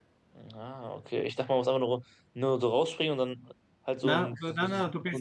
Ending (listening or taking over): taking over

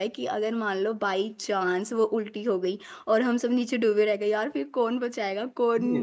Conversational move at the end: taking over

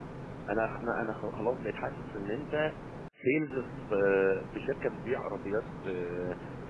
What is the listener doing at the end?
listening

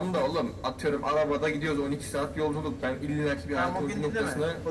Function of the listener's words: taking over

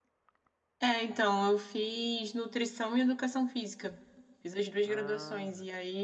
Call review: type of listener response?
listening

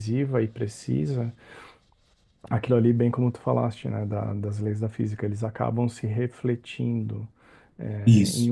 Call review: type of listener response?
listening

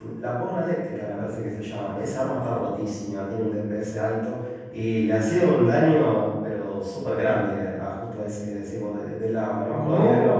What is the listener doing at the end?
taking over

